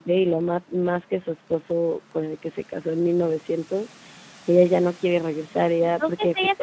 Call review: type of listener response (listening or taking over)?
taking over